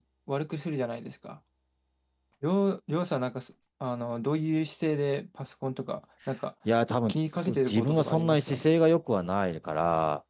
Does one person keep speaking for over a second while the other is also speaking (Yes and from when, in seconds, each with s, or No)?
Yes, from 7.1 s